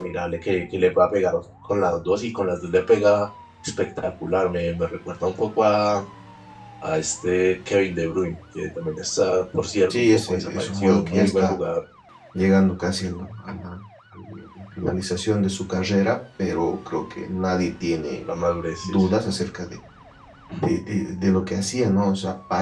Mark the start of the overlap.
9.9 s

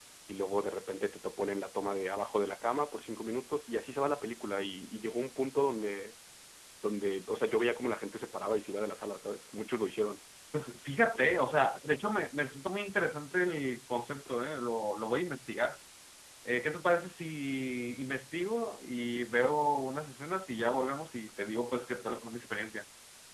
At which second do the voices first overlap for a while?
none

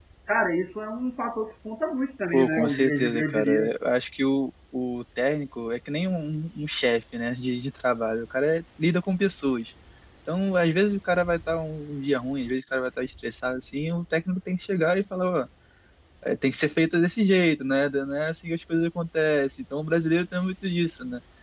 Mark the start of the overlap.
2.3 s

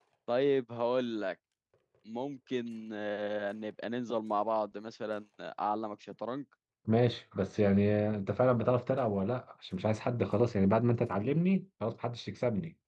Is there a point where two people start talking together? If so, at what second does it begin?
none

